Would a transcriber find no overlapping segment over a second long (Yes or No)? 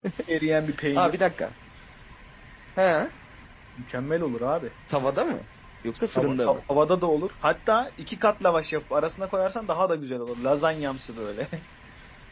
Yes